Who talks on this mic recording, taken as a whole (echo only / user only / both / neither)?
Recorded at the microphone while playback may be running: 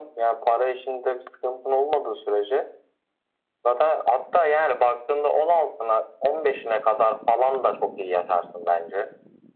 echo only